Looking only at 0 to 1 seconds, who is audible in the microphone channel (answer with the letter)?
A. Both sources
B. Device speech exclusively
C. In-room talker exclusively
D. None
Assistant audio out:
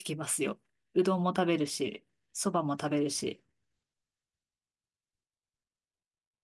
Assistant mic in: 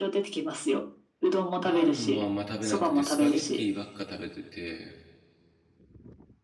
B